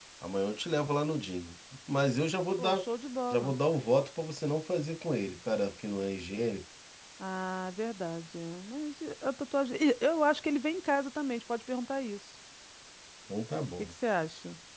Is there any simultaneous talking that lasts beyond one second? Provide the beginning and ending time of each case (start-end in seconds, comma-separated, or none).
none